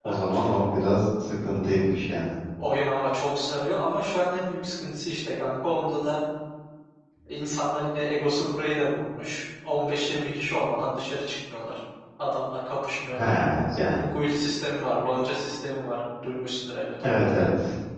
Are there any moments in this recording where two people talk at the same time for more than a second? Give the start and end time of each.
none

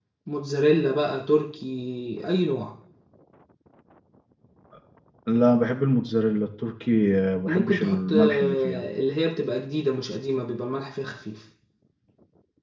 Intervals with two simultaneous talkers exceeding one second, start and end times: 7.5-8.8

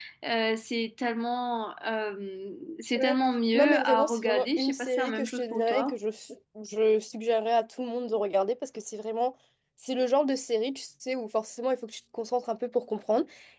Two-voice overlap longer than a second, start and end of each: 3.6-6.0

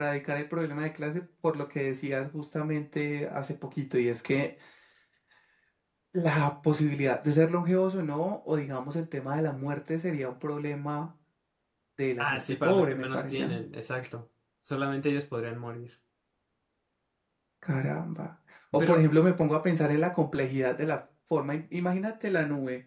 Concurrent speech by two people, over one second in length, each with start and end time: 12.2-13.4

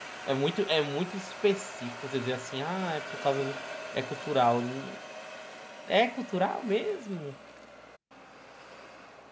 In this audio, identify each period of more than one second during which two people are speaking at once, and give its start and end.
none

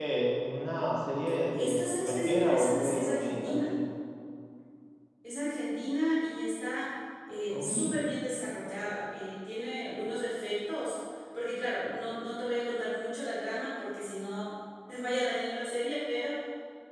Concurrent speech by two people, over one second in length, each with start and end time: 1.5-3.7

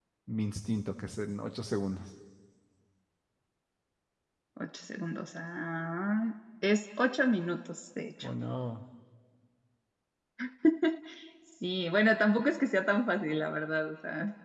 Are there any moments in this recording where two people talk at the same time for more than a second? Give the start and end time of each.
none

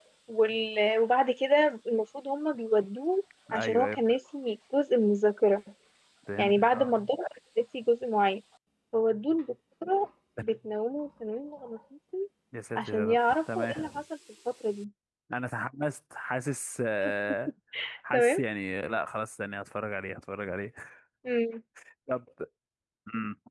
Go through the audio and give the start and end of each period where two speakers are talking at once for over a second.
12.8-14.0

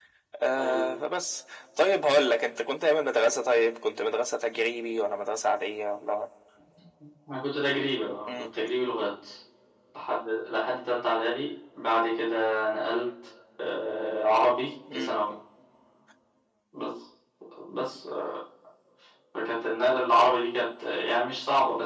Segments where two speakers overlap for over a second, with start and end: none

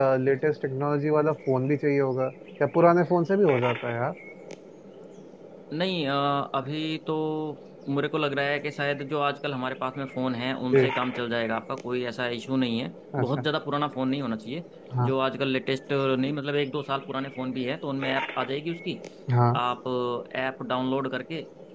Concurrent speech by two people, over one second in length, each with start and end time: none

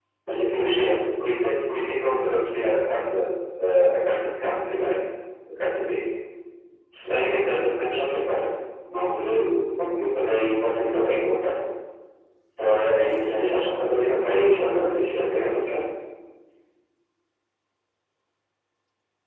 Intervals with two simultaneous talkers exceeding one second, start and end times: 13.4-15.6

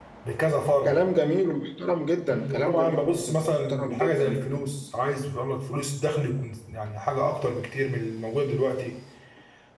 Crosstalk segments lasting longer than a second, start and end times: 2.3-4.5

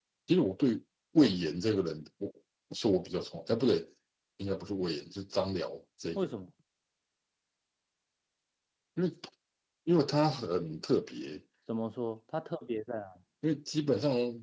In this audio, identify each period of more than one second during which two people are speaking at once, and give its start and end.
none

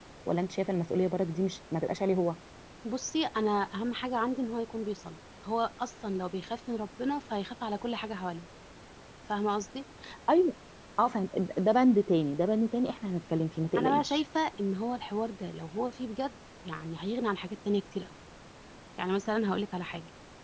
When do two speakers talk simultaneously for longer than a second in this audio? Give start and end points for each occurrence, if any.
none

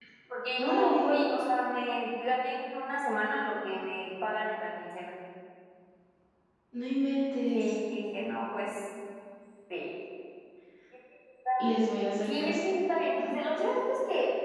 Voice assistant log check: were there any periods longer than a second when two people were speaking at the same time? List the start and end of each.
none

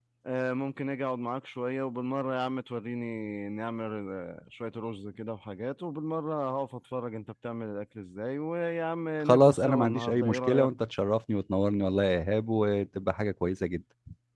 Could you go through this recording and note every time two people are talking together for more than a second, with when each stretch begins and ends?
9.2-10.7

